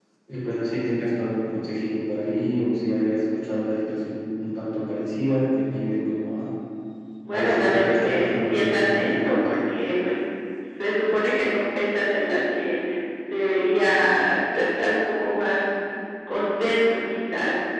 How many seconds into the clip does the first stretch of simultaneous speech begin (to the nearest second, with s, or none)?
7 s